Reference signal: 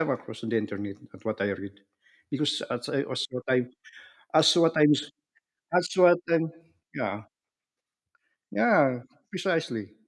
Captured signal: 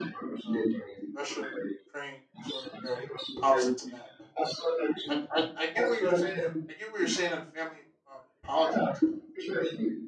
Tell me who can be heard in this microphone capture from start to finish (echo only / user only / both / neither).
both